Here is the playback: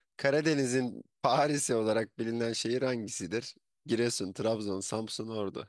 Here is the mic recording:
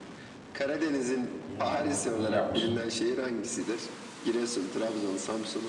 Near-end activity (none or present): present